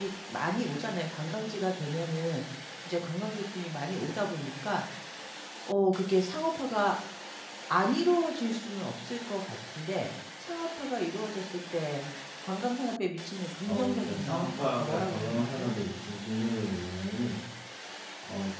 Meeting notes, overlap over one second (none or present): present